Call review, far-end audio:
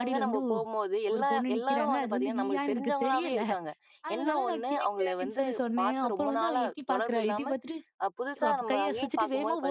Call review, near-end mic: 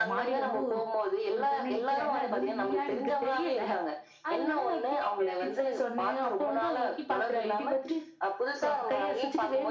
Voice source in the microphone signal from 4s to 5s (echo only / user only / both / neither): echo only